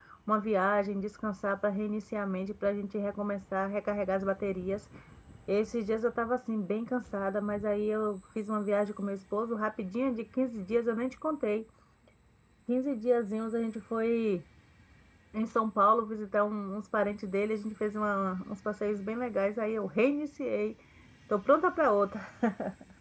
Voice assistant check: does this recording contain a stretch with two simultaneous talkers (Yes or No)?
No